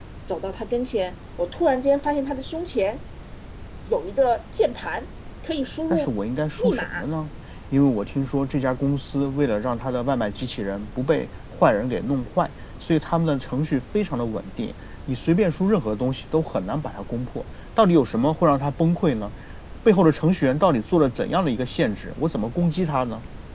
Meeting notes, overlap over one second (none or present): none